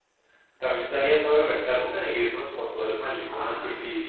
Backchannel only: No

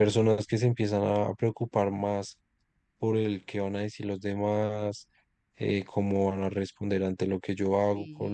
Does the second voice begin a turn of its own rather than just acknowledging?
Yes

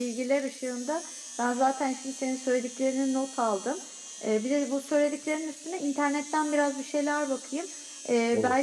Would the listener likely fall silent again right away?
Yes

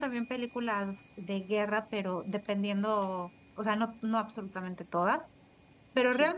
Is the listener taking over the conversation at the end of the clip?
No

